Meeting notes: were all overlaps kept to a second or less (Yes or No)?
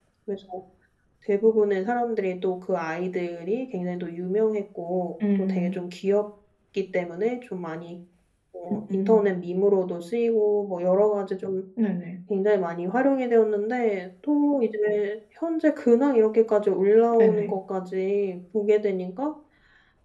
Yes